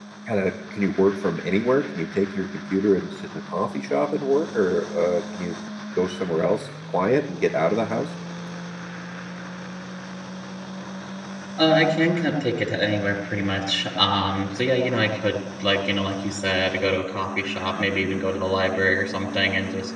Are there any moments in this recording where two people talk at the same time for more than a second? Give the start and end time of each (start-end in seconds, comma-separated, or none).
none